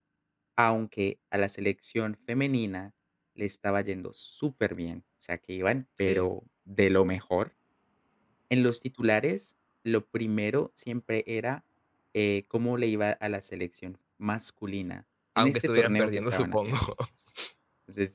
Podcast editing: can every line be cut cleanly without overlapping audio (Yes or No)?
No